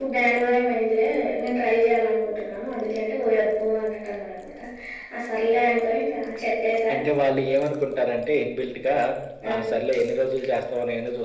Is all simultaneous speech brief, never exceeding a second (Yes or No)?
Yes